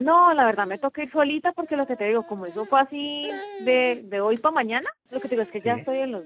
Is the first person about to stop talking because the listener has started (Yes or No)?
No